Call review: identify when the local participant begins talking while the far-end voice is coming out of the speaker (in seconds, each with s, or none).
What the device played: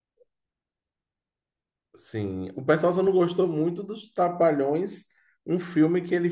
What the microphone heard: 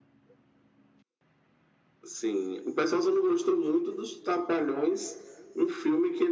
none